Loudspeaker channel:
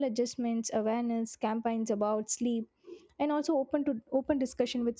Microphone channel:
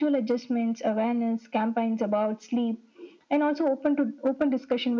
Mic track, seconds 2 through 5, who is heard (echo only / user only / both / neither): echo only